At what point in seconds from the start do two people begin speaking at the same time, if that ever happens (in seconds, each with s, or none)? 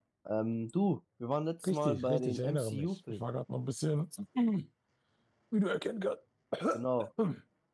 1.6 s